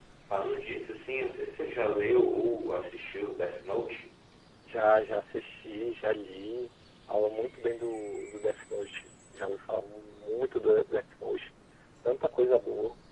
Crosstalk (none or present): none